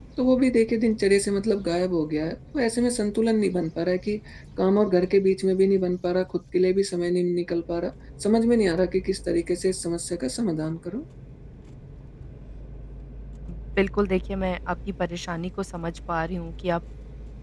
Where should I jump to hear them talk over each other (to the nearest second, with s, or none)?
none